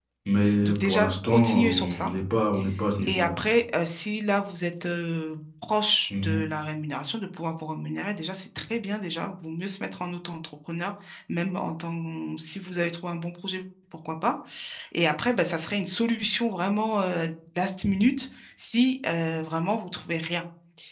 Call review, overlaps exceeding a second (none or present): present